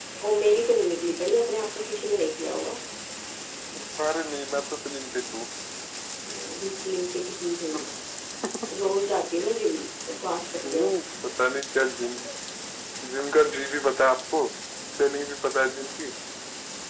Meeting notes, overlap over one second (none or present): none